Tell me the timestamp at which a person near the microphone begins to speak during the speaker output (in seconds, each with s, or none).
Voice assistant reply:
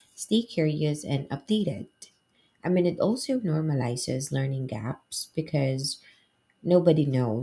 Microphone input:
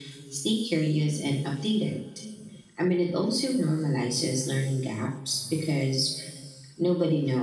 none